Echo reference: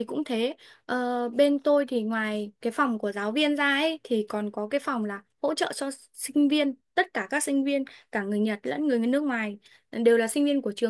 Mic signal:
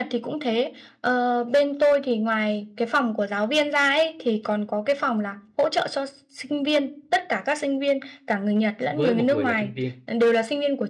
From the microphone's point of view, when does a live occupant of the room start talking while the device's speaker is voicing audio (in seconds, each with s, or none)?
8.9 s